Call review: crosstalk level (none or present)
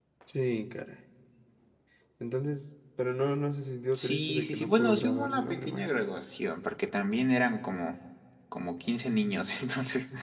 present